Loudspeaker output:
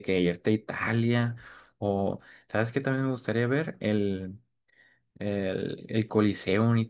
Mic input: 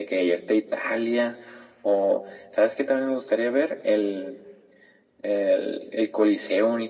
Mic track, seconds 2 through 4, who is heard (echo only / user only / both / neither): echo only